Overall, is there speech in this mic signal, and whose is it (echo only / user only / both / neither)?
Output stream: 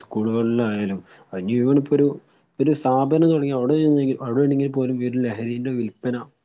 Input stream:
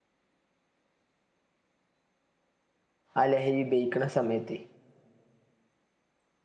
user only